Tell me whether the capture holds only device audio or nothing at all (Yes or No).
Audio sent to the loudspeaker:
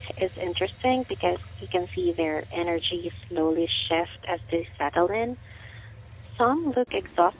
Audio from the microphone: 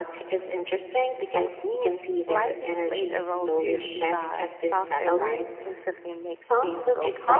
No